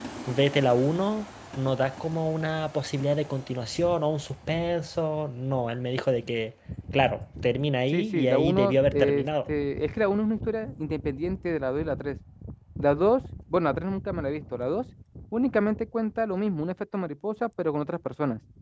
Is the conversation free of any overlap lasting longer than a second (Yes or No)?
No